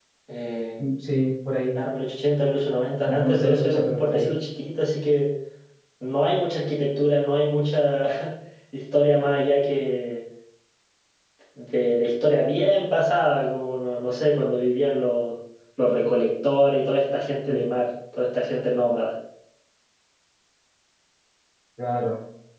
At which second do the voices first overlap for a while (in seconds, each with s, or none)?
3.0 s